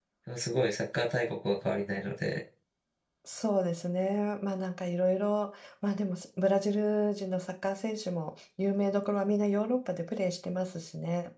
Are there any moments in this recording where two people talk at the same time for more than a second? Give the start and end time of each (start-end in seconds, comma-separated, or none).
none